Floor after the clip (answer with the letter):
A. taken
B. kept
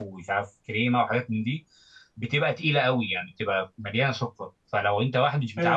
B